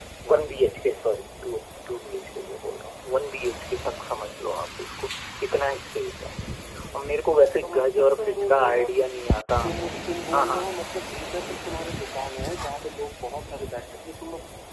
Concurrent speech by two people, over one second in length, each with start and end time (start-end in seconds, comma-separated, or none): 7.6-9.1